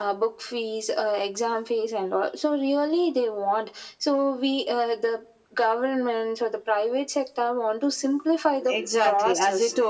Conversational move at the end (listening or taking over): taking over